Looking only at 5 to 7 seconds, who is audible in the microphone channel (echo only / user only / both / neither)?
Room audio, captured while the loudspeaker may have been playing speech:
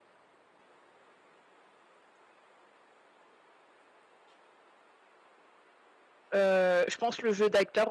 user only